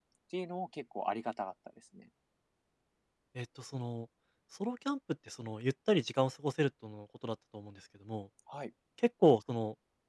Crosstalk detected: No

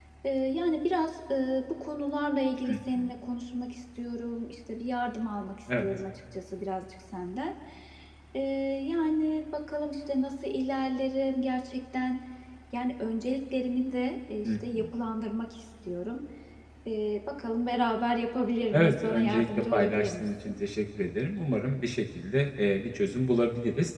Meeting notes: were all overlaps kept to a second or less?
No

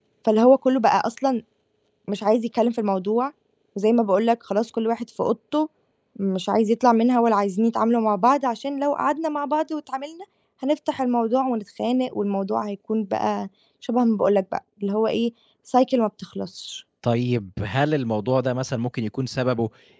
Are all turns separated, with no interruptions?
Yes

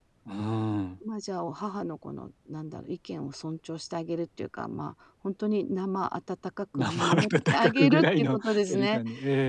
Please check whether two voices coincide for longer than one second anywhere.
Yes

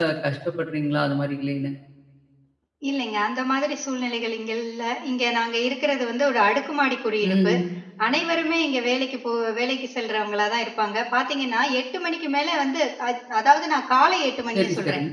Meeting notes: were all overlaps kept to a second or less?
Yes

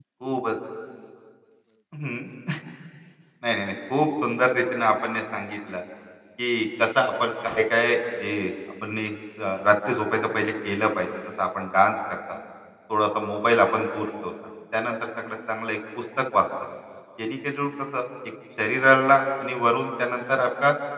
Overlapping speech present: No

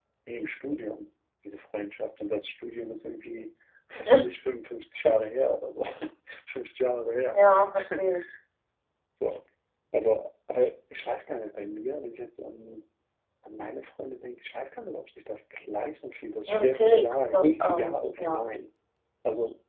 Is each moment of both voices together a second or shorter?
No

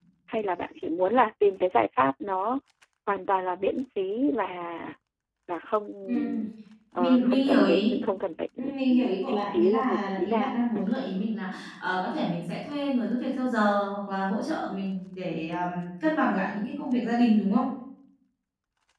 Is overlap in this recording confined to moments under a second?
No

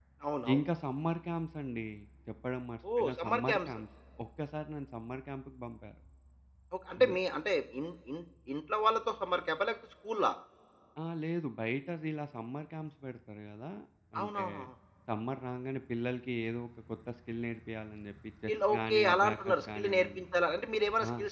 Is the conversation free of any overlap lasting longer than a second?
No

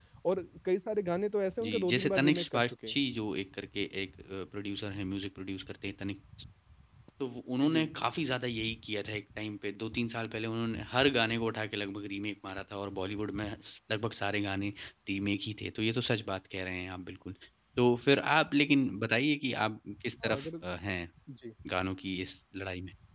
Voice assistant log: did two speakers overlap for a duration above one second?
Yes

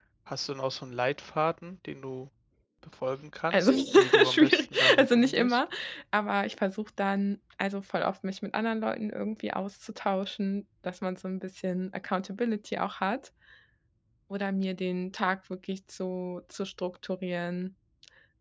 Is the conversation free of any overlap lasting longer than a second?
No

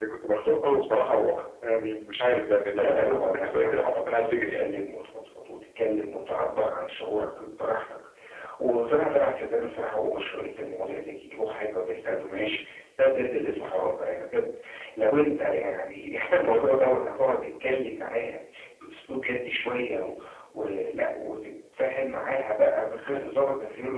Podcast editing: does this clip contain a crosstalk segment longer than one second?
Yes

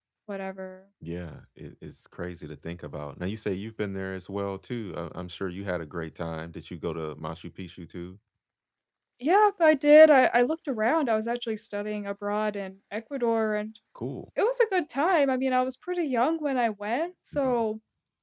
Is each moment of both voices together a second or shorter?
Yes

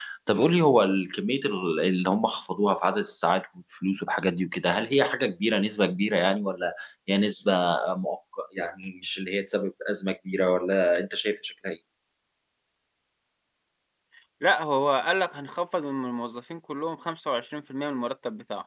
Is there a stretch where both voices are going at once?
No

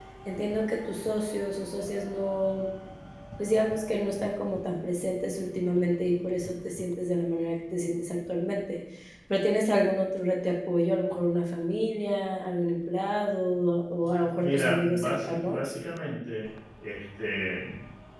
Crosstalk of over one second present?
Yes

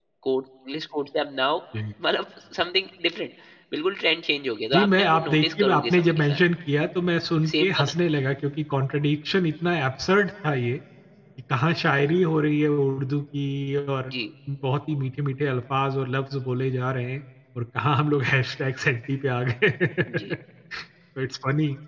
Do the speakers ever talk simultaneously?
Yes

